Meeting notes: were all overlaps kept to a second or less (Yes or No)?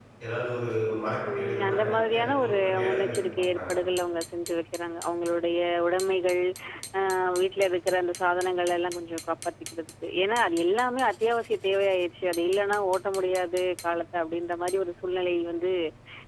No